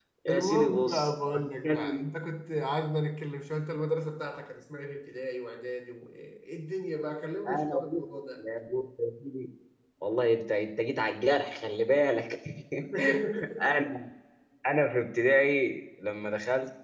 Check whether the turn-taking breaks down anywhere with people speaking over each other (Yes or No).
Yes